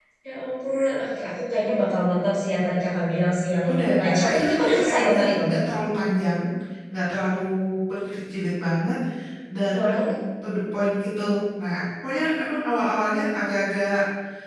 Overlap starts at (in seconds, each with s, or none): 3.7 s